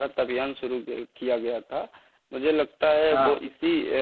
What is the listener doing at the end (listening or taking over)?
listening